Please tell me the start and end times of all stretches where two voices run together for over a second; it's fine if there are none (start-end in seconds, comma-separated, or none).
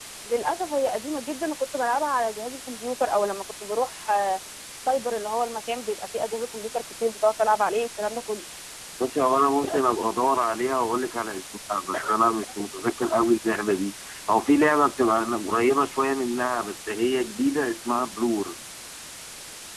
none